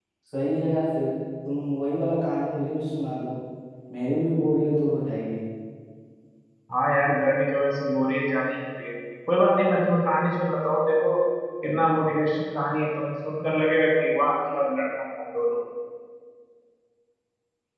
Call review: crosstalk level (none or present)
none